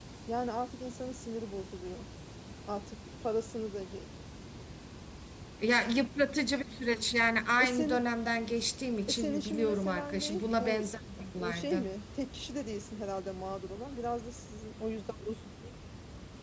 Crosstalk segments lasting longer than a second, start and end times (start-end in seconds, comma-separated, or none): 9.1-10.8